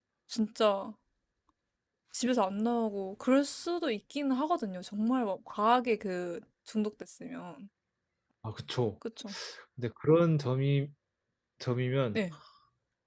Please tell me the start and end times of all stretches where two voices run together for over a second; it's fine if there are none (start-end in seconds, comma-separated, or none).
none